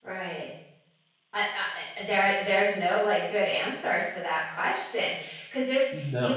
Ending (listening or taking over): listening